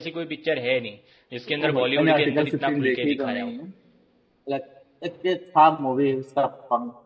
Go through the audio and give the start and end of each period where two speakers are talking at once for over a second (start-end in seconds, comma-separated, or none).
1.6-3.5